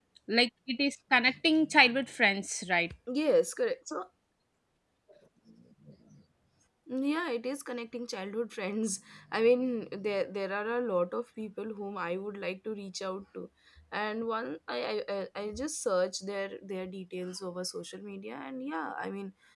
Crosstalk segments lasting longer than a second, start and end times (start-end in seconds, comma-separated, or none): none